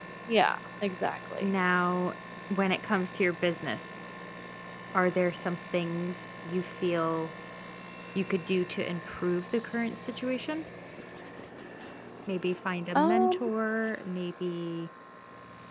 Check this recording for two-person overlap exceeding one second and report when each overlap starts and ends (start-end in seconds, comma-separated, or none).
none